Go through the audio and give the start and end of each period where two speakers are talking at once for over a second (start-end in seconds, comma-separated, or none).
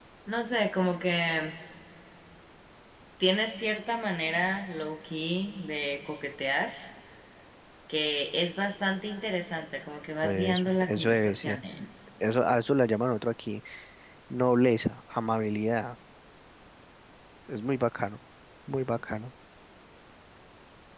10.2-11.6